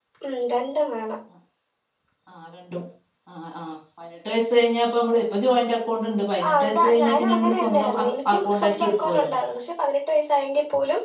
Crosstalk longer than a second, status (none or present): present